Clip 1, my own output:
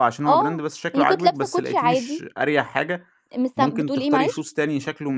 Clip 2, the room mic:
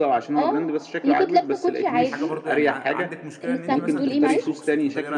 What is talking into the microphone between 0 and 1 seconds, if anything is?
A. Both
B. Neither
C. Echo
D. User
C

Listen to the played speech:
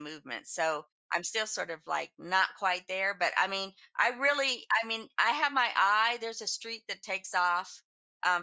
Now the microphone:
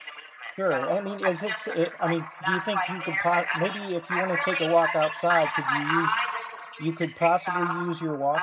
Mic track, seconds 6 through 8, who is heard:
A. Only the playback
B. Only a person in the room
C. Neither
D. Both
D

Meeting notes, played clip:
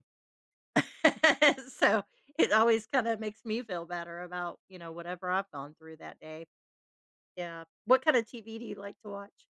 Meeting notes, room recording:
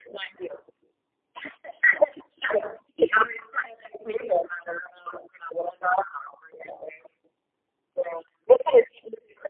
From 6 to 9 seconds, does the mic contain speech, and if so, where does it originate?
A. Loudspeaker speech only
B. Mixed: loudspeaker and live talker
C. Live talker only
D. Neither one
A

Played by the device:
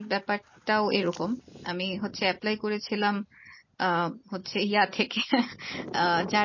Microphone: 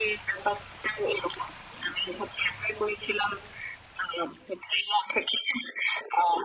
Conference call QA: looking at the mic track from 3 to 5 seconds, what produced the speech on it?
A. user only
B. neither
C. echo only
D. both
C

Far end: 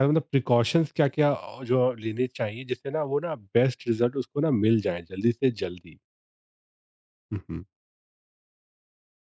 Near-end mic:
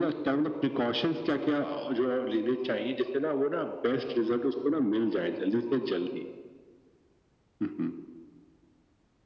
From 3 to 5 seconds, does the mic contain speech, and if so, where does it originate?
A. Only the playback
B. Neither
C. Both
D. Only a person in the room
A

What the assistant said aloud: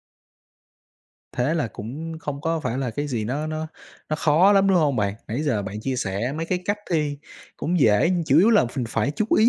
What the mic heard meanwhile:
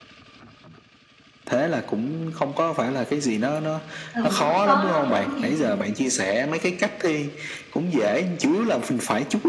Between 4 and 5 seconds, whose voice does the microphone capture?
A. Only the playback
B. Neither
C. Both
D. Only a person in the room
C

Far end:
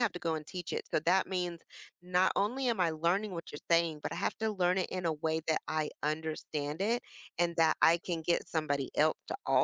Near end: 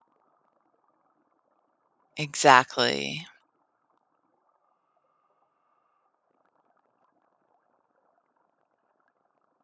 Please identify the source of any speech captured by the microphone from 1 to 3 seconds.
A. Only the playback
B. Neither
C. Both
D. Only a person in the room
D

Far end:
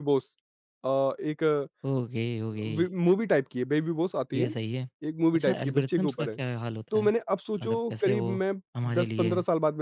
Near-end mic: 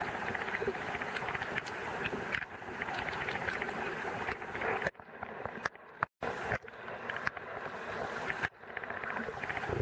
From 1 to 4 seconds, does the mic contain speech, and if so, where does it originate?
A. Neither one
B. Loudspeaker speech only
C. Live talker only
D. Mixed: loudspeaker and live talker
A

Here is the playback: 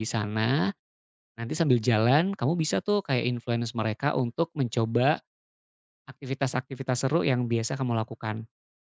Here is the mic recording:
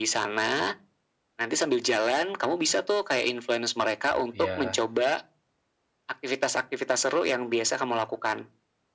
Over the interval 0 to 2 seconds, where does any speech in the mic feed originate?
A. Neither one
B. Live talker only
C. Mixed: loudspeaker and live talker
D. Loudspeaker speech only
D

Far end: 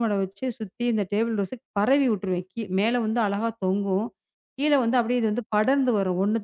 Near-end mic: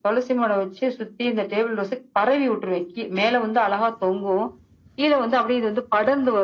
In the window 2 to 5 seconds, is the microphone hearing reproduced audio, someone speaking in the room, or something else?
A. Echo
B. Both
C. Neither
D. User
A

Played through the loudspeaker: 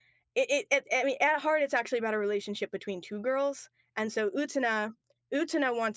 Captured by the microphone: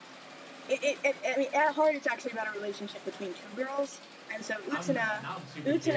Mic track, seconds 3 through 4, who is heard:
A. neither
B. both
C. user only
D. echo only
D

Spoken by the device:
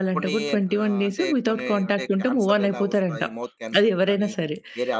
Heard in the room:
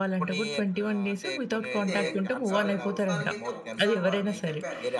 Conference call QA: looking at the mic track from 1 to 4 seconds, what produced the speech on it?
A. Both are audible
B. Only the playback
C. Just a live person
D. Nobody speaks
A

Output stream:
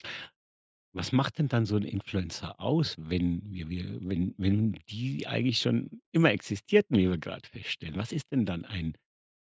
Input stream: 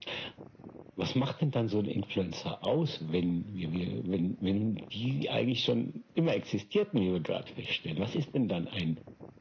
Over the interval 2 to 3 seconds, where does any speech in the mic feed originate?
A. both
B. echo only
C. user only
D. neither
B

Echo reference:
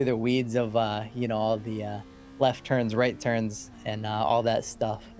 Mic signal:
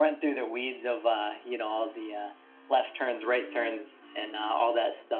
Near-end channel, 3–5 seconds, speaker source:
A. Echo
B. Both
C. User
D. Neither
A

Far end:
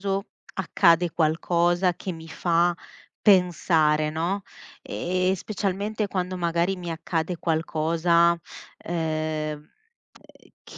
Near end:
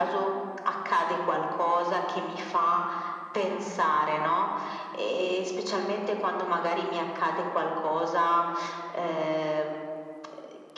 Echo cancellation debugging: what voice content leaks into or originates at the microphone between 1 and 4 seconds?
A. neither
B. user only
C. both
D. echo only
D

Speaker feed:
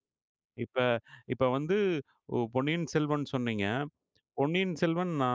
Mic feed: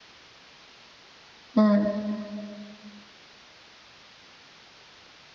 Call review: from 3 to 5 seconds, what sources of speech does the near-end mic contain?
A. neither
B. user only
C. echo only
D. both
A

